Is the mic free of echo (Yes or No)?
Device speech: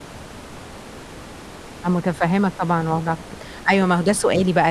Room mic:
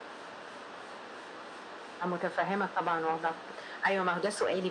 No